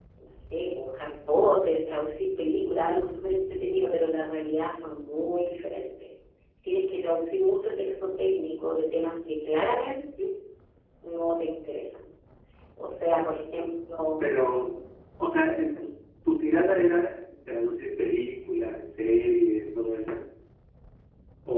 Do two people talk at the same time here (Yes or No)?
No